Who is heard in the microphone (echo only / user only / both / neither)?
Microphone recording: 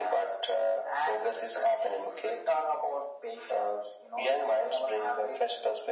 echo only